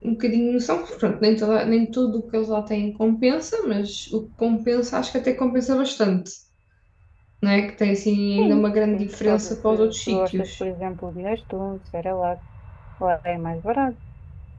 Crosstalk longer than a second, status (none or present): present